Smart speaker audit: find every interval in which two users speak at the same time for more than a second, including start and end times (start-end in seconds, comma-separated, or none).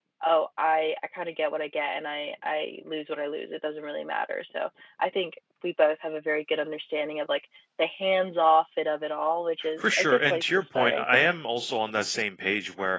9.8-11.2